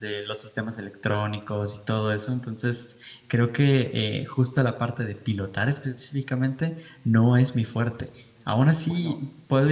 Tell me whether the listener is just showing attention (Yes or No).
Yes